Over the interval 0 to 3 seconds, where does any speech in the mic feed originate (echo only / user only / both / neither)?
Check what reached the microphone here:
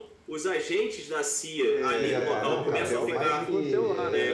both